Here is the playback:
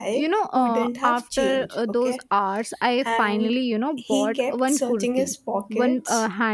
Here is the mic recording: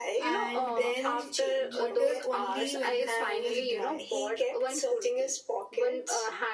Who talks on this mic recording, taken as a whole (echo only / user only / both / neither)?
both